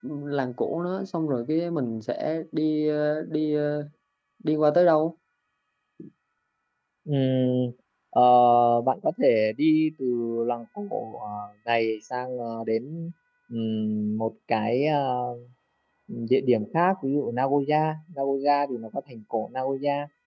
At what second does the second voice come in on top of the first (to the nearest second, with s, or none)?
none